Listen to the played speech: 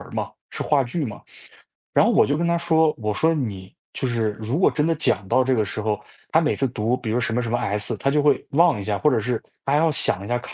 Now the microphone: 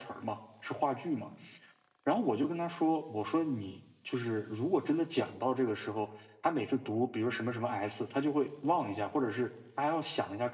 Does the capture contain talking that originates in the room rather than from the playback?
No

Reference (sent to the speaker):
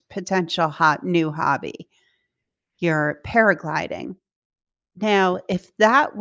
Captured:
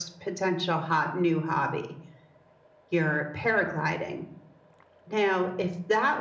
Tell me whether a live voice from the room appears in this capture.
No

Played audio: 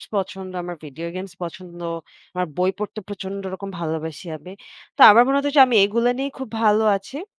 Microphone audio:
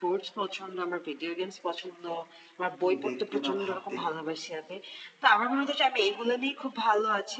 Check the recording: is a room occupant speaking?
Yes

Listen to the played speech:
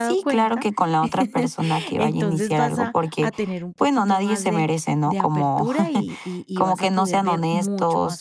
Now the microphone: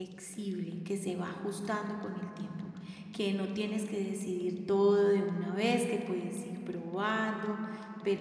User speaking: Yes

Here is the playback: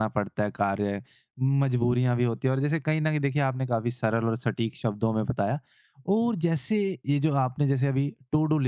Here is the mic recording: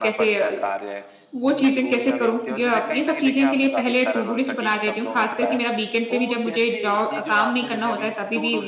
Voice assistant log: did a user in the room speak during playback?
Yes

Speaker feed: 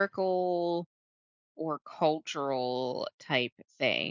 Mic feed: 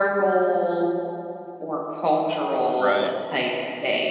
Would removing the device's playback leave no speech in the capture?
No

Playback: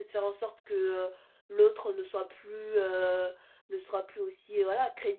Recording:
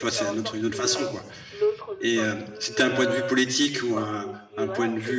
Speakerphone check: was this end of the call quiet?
No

